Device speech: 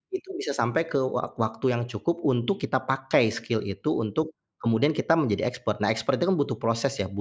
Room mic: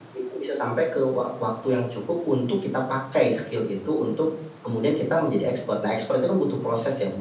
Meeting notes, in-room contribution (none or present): none